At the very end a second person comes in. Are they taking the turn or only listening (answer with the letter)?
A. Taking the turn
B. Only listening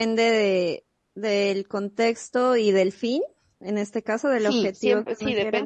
A